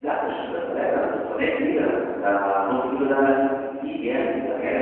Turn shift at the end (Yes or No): Yes